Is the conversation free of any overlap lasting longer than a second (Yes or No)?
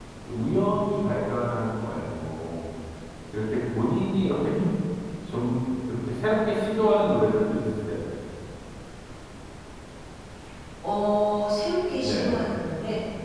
Yes